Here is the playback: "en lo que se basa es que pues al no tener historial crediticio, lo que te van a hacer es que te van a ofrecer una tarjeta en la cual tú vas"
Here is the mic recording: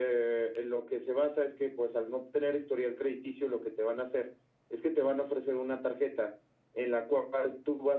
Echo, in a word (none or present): present